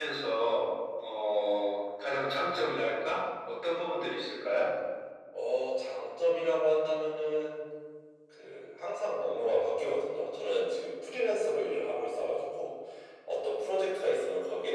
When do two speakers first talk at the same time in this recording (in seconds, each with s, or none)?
none